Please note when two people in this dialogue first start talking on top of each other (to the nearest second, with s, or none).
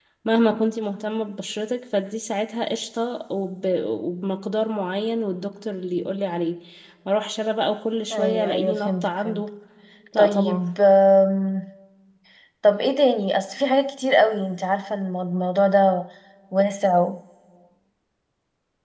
8 s